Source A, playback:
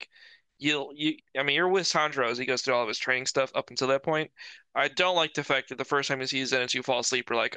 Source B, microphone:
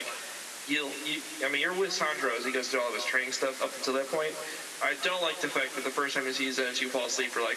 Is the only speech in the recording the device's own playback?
Yes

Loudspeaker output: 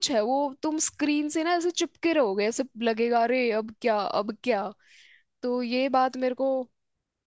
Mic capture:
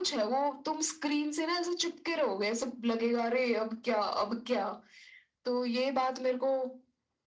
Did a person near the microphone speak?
No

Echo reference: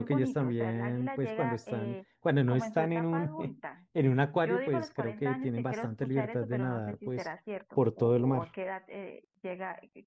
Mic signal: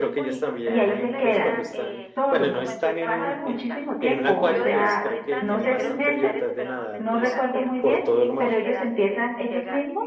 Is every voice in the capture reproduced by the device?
No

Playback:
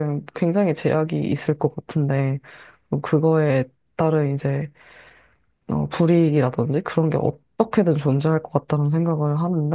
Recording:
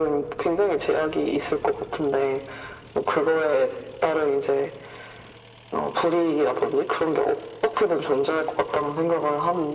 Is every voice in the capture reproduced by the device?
Yes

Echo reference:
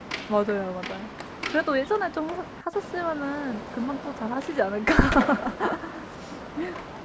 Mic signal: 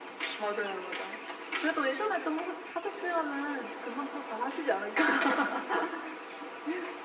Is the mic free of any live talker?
Yes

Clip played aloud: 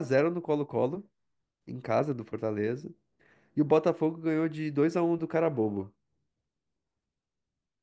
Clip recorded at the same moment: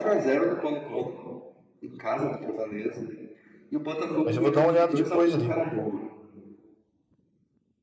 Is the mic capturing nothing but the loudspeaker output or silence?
No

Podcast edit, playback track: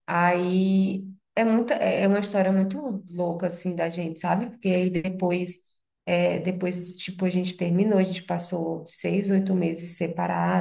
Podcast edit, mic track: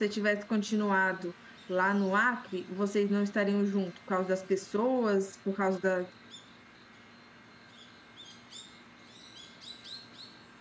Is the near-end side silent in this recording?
No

